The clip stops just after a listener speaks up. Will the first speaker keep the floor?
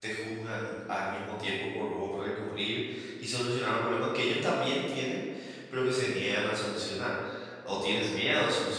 Yes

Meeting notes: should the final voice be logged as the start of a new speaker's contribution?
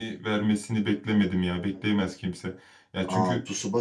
Yes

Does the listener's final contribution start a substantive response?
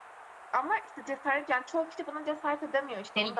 Yes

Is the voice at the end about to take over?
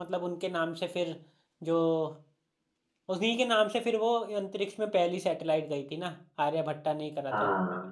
Yes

